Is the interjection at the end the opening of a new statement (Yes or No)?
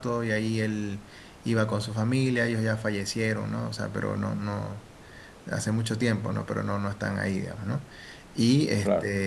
No